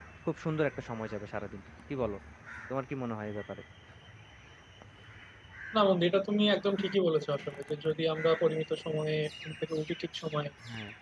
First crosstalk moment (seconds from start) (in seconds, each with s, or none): none